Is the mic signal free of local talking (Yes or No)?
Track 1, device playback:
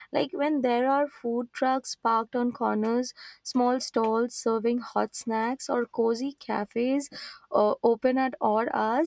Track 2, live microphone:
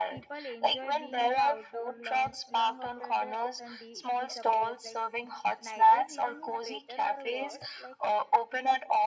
No